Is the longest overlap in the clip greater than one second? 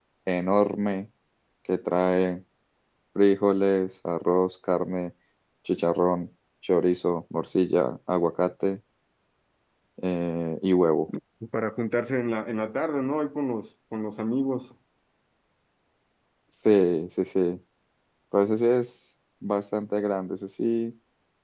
No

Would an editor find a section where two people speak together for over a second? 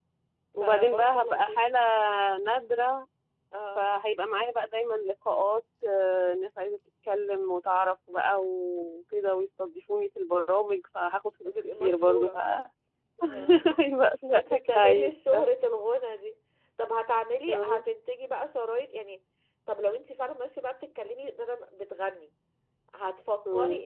Yes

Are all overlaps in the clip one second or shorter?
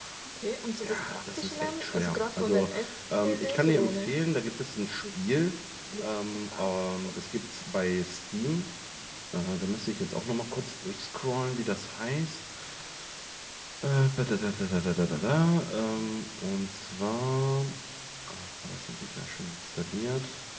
No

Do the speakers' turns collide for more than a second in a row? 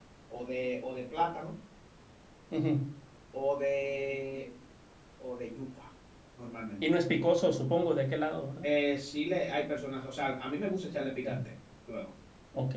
No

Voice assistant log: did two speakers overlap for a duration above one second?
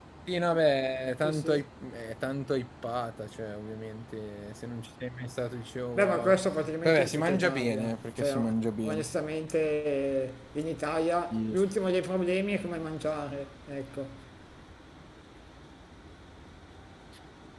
Yes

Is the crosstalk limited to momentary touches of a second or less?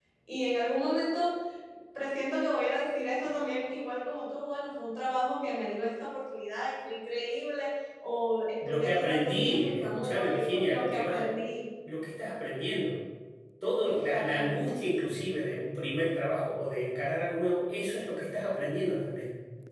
No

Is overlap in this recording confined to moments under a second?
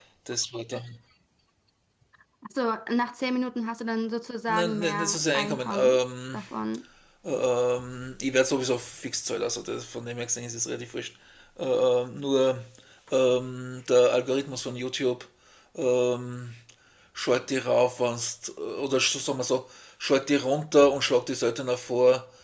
No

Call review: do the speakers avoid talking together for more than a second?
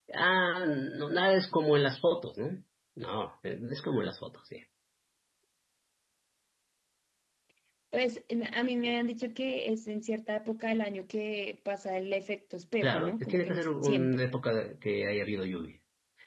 No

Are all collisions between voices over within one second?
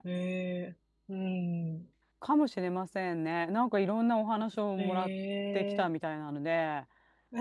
Yes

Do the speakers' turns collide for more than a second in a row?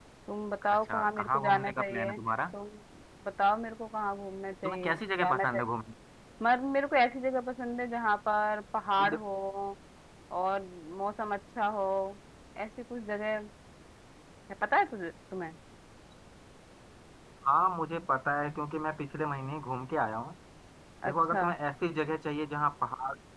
Yes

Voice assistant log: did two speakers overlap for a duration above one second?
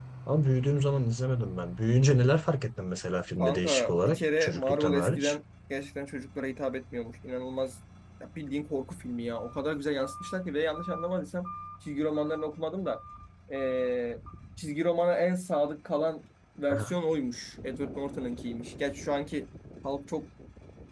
Yes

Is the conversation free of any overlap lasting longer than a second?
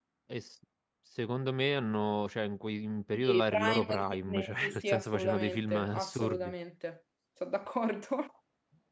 No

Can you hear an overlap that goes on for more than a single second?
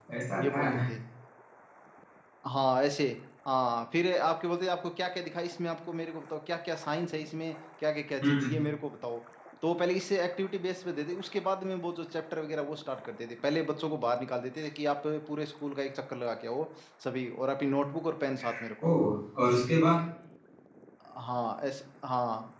No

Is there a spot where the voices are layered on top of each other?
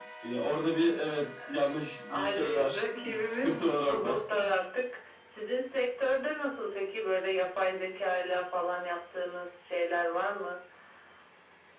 Yes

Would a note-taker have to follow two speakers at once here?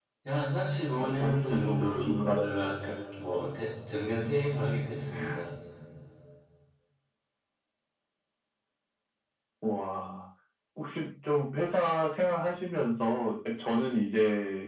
Yes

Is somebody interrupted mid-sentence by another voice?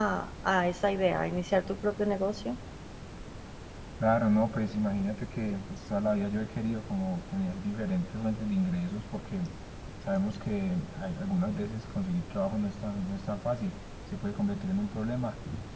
No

